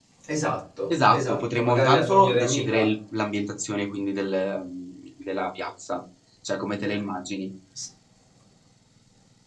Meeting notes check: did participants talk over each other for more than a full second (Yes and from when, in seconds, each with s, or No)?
Yes, from 1.1 s